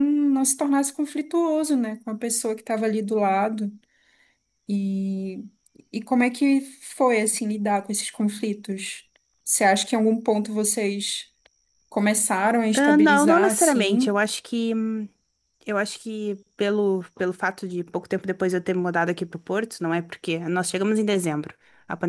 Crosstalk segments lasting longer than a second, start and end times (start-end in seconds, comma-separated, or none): 12.8-14.2